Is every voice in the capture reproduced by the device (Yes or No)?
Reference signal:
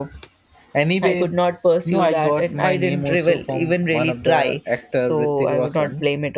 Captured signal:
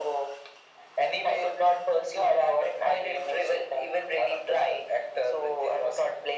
Yes